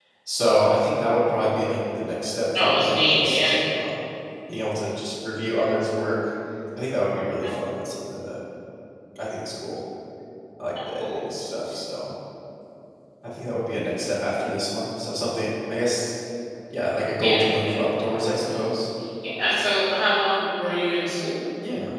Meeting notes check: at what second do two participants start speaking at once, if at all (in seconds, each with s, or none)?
2.6 s